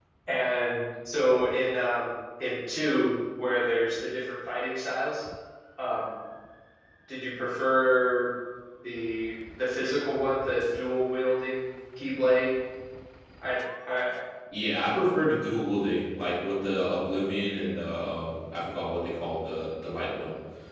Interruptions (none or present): none